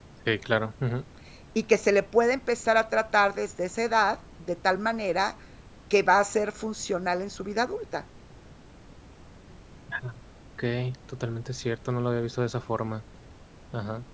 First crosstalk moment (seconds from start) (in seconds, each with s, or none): none